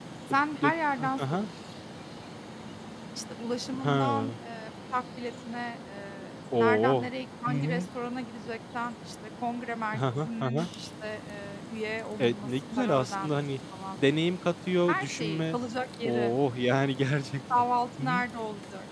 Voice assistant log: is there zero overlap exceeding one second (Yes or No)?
No